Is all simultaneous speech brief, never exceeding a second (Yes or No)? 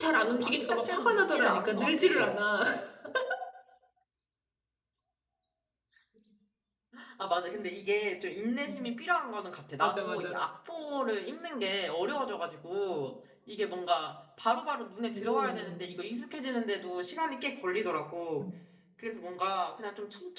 No